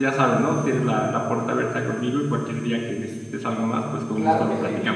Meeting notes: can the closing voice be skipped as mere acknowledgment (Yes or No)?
No